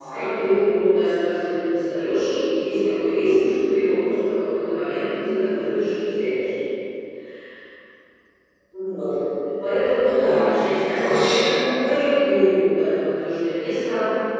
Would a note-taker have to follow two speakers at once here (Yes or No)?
Yes